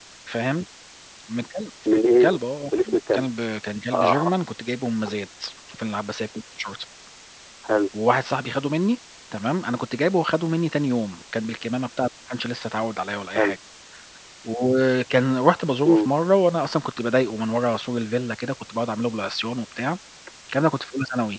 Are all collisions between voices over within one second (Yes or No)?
Yes